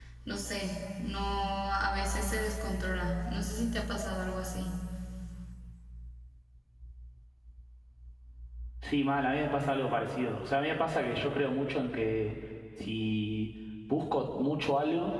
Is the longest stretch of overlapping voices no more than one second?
Yes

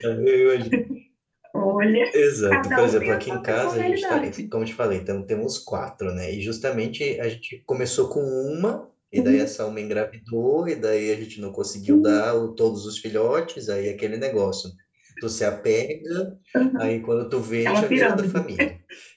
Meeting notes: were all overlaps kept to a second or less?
No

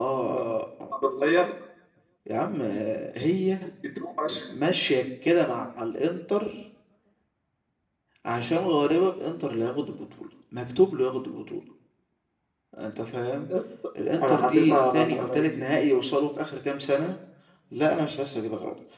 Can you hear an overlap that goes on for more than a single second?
Yes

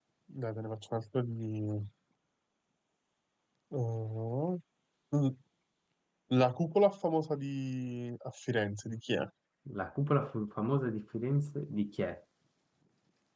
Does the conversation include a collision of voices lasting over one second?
No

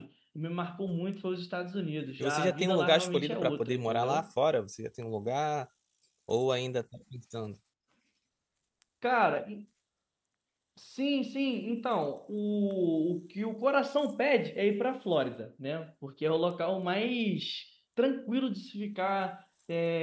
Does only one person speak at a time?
No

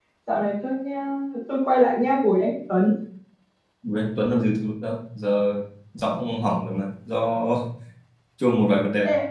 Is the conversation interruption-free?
Yes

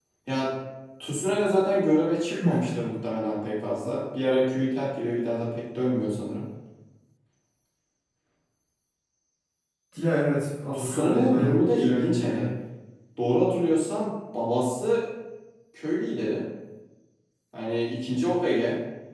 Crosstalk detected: Yes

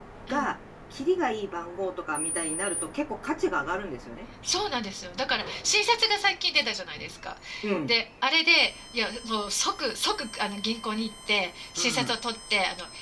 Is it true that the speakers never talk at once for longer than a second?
Yes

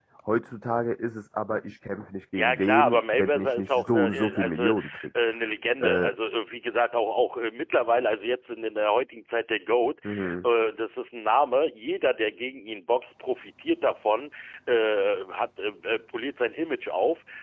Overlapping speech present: Yes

